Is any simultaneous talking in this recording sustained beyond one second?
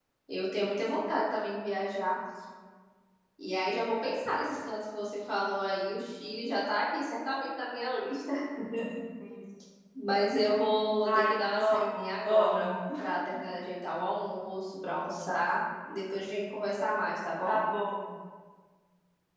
Yes, from 11.1 s

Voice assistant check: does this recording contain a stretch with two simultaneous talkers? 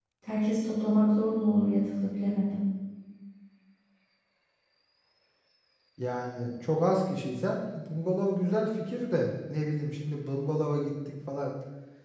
No

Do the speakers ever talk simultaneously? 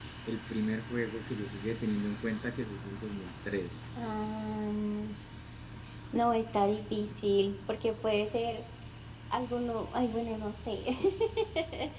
No

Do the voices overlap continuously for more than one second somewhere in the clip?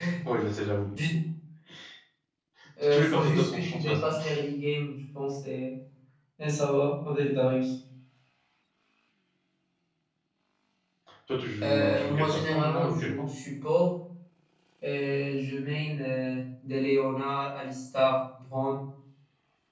Yes, from 2.9 s

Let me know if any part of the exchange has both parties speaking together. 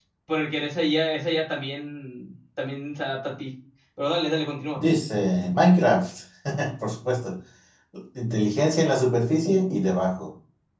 No

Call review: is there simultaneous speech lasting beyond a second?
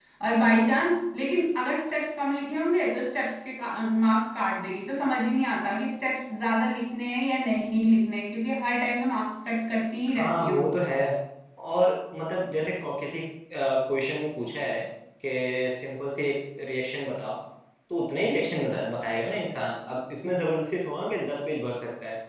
No

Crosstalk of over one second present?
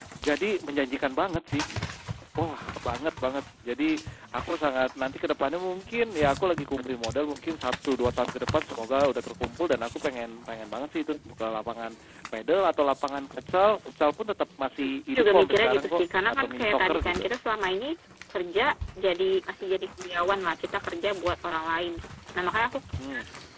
Yes, from 14.8 s

